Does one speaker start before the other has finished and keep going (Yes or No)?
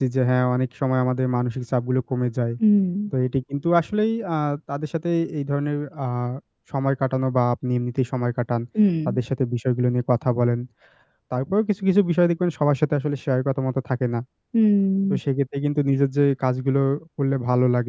No